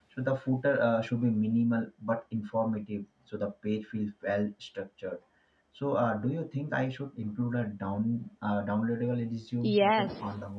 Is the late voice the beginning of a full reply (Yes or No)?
Yes